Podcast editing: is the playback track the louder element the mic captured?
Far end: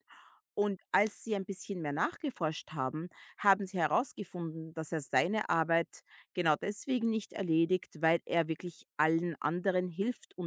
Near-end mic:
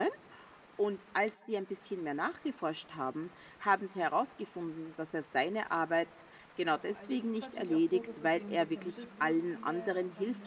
Yes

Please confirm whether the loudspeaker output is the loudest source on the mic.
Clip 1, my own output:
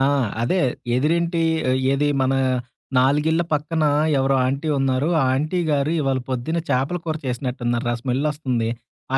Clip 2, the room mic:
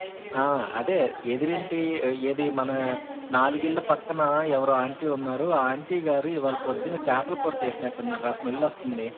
Yes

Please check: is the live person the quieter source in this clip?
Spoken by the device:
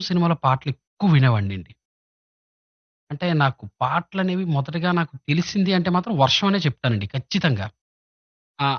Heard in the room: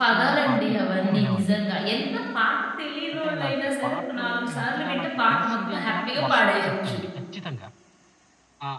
No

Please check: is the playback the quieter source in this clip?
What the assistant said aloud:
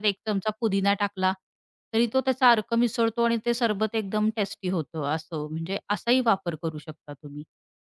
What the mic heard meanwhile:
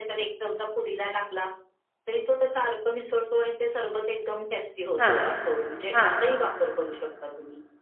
Yes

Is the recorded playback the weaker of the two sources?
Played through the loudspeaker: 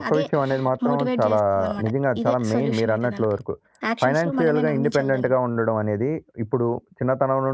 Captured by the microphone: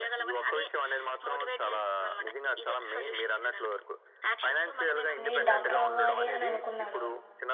Yes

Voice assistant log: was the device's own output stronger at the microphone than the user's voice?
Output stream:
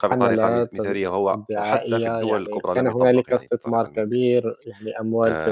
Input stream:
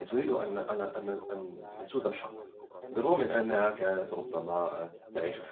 No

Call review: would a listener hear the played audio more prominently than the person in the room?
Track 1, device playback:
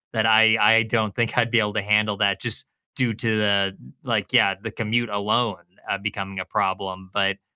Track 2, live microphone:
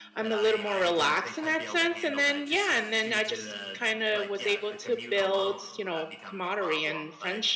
No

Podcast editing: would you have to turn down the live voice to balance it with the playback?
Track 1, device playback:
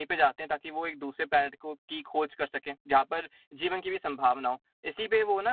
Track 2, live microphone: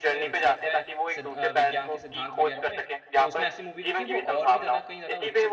No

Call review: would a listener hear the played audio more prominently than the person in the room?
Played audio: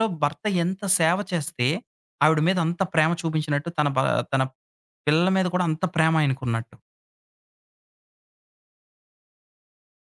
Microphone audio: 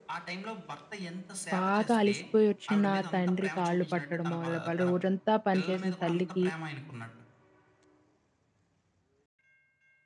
No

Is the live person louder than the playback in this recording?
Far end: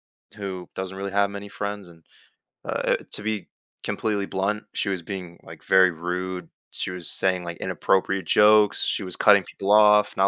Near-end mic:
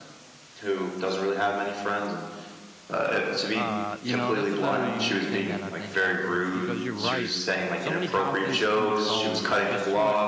No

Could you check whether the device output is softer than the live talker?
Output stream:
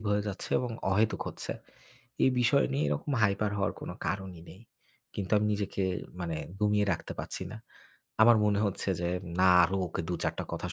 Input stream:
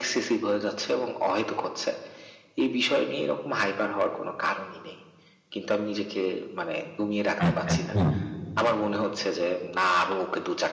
Yes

